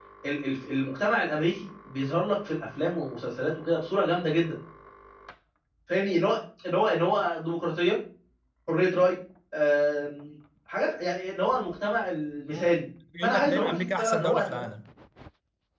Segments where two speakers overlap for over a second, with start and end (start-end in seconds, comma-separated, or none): 13.2-14.7